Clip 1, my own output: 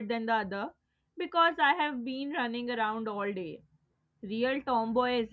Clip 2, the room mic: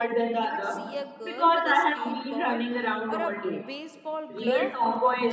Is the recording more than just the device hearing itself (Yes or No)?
Yes